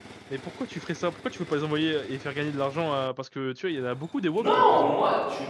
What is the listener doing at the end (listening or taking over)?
taking over